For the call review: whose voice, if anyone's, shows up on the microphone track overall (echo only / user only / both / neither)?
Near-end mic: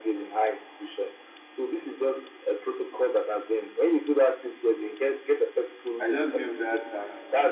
both